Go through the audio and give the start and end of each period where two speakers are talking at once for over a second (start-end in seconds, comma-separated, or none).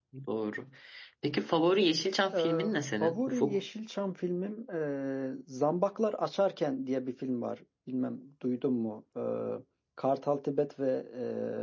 2.3-3.6